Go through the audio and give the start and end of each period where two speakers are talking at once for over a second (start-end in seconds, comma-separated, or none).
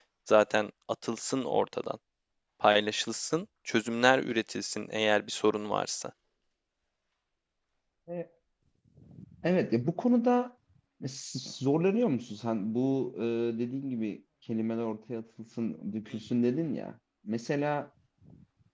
none